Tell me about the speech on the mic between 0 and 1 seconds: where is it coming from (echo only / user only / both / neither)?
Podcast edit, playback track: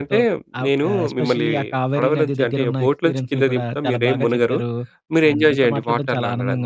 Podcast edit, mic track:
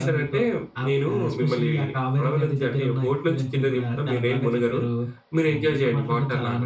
echo only